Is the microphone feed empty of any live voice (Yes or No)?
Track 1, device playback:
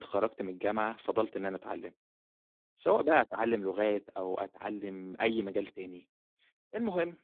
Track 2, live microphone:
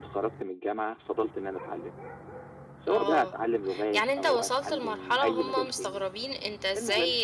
No